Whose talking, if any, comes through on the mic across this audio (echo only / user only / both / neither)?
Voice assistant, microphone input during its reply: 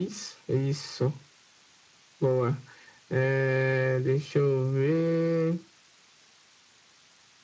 echo only